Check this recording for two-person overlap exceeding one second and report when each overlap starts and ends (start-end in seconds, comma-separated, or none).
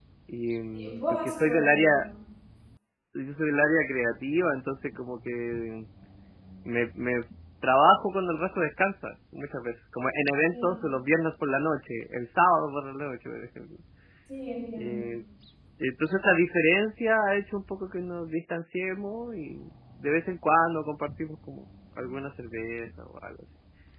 0.7-2.1